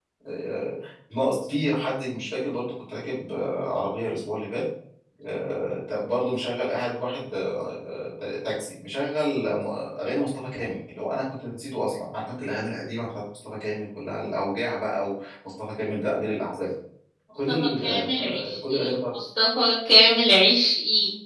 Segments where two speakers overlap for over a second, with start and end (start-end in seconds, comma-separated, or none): 17.5-19.2